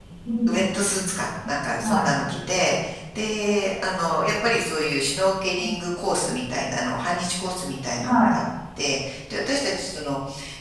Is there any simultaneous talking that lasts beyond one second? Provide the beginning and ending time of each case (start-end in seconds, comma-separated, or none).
none